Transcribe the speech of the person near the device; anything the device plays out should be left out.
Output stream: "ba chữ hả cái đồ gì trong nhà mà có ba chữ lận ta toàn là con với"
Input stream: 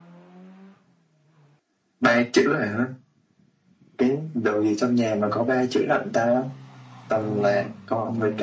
none

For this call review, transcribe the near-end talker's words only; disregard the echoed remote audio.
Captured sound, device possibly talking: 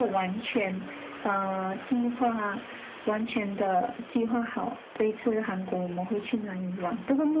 none

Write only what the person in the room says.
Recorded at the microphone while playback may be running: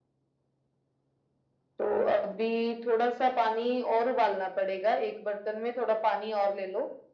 none

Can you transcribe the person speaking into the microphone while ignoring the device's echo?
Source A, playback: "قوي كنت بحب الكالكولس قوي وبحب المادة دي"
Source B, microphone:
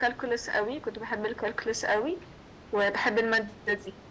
none

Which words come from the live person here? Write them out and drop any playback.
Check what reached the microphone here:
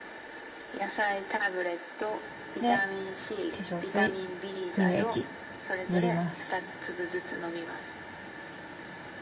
で、化粧水、乳液、塗ります。

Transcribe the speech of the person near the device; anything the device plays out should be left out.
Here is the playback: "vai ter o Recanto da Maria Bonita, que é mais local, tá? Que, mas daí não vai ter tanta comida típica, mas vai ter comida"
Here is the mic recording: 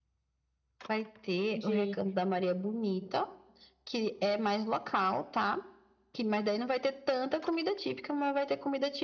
de

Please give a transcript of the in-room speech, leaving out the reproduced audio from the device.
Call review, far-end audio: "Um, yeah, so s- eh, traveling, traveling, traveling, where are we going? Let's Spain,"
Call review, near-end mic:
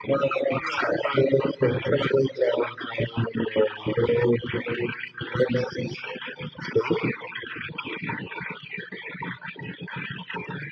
none

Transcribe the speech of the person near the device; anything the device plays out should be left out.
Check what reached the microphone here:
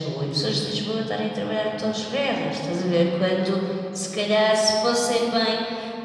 none

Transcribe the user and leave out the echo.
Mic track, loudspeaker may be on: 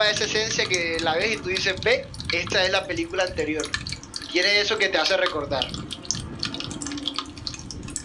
none

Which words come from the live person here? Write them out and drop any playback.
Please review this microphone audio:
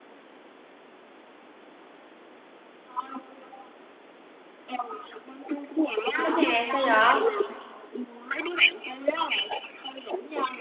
Có nè, sao vậy?

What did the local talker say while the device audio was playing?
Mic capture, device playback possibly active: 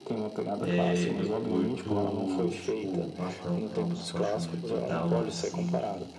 é, eu curto, tipo, nossa, tem, um- tem uma música que eu acho muito da hora, assim, de,

